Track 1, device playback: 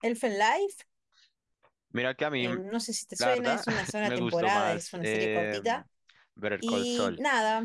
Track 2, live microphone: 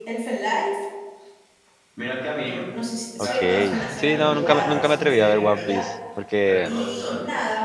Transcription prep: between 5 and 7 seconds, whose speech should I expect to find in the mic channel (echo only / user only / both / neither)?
both